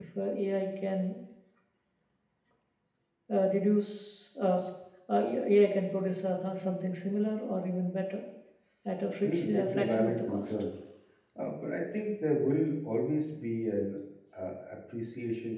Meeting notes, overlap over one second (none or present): present